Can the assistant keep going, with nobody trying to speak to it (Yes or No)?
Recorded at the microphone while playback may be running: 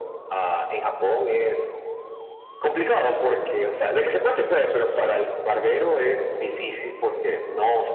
Yes